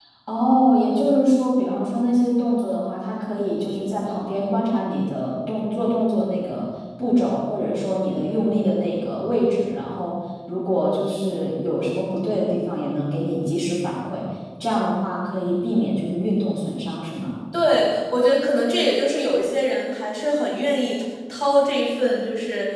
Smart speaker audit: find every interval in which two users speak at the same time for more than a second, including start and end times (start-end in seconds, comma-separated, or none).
none